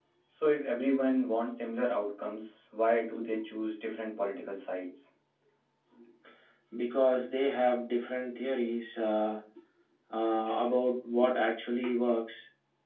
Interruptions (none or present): none